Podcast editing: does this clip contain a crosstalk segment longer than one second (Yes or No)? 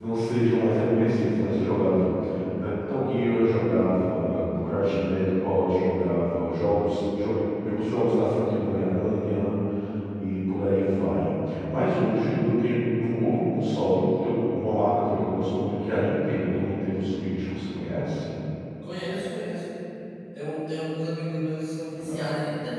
No